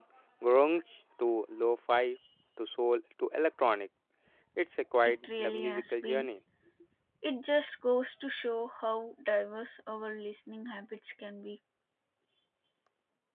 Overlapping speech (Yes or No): Yes